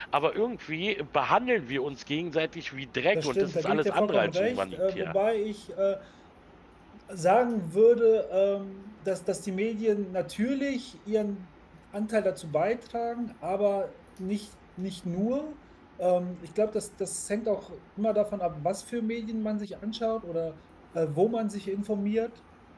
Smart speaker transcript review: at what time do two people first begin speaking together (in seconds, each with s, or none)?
3.1 s